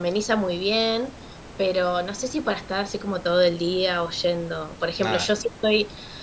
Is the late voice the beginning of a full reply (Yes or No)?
No